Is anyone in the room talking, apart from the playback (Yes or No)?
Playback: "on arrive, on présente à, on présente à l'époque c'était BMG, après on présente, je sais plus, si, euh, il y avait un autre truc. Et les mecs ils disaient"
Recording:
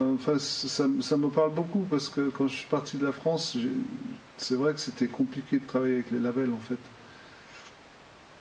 Yes